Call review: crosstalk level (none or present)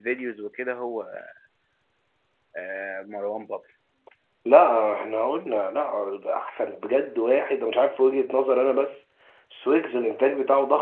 none